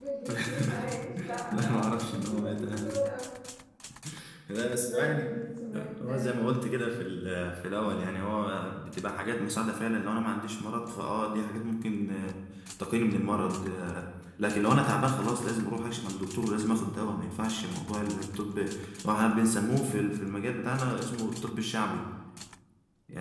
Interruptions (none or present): present